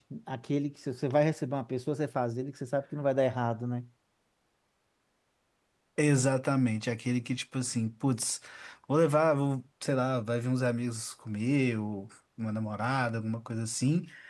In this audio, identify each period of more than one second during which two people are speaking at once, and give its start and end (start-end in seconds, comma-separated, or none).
none